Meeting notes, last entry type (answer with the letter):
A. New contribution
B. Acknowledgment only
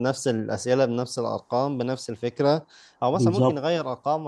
B